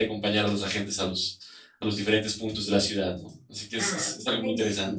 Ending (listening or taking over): taking over